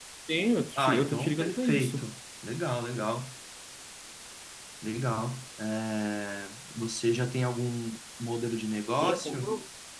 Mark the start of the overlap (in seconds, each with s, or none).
0.8 s